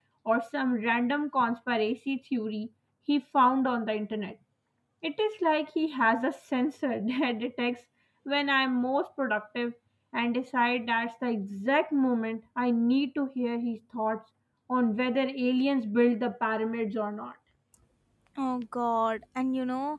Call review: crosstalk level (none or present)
none